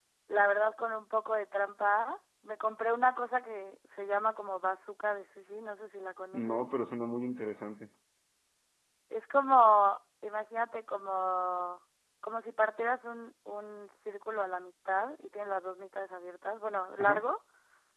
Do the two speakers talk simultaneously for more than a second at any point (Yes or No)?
No